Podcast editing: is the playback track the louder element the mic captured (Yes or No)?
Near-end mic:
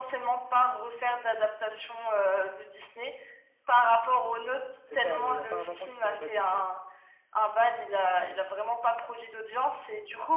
Yes